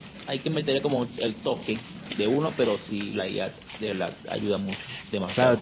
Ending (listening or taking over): taking over